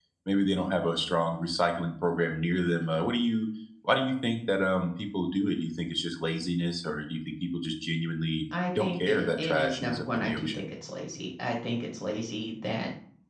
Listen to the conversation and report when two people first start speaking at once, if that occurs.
8.8 s

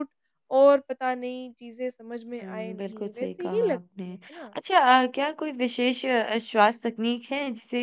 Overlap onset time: 2.4 s

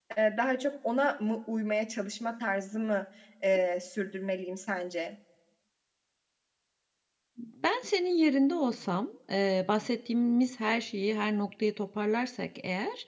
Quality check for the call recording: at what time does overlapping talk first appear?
none

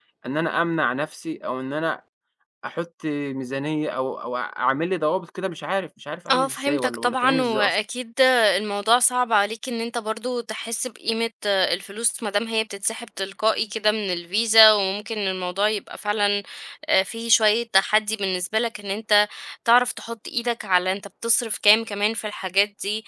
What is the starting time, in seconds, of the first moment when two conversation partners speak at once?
6.3 s

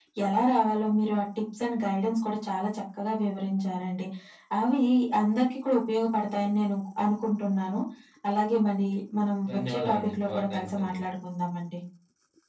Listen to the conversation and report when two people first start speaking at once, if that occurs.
9.5 s

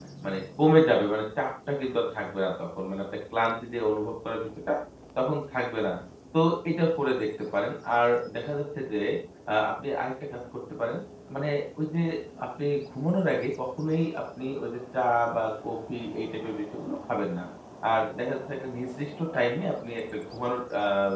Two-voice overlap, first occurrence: none

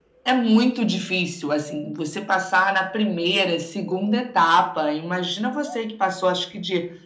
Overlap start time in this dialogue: none

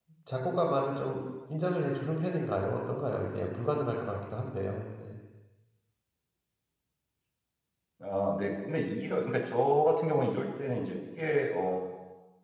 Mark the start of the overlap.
none

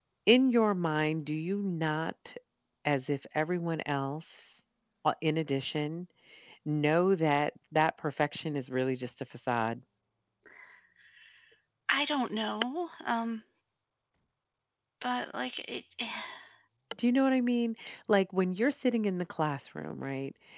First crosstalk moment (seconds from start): none

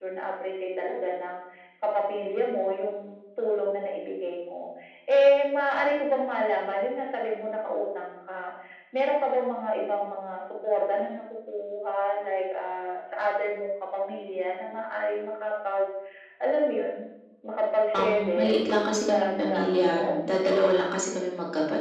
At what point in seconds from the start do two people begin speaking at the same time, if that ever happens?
17.9 s

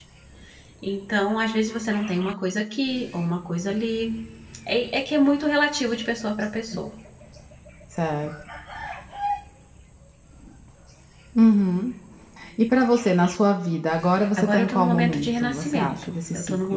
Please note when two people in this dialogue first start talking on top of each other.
14.4 s

